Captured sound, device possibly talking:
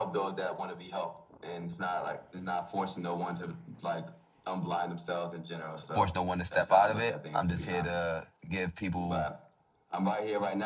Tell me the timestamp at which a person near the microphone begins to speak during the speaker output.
5.9 s

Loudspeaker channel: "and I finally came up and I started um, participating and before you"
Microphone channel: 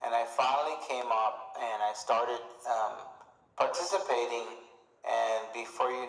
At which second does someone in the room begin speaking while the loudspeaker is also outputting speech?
none

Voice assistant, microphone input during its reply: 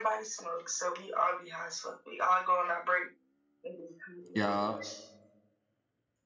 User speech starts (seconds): 4.3 s

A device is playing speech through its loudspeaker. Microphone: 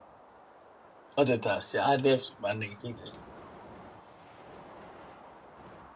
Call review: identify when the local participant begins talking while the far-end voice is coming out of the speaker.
1.2 s

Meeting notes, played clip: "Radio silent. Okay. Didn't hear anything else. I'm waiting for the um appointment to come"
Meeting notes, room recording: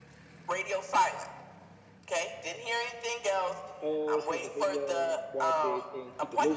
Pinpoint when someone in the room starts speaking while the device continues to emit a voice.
3.8 s

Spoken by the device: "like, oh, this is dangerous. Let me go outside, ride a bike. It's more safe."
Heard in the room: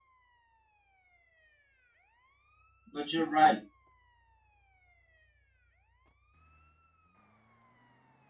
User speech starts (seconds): 2.9 s

